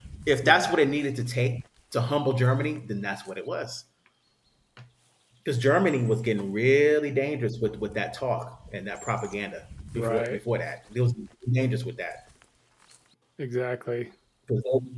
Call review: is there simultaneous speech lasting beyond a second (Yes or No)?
No